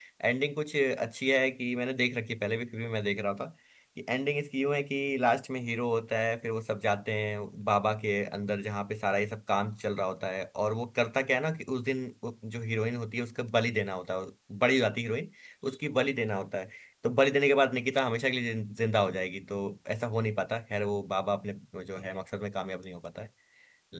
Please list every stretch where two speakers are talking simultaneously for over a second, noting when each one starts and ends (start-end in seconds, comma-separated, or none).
none